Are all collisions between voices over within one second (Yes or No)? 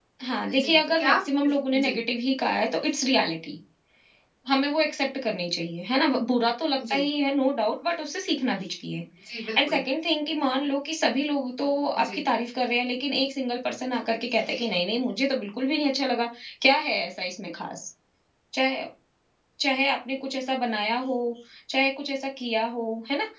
No